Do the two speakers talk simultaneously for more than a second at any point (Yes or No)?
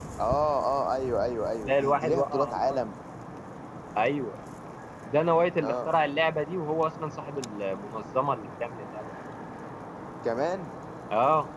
Yes